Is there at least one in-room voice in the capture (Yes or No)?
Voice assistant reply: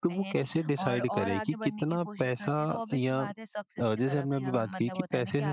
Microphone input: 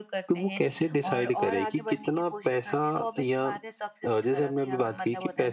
No